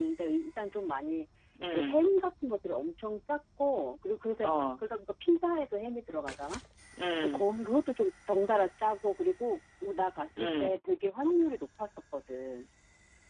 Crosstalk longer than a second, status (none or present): none